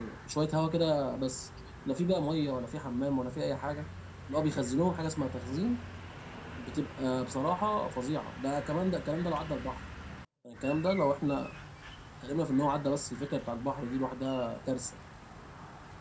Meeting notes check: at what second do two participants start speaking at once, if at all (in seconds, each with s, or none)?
none